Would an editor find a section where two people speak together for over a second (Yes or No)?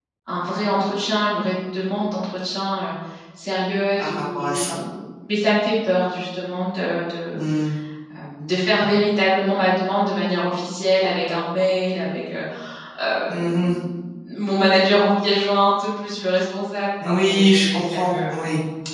Yes